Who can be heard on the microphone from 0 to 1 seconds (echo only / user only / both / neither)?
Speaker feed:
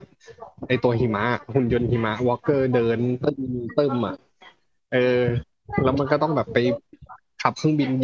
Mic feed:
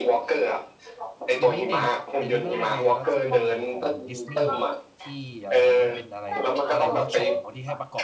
echo only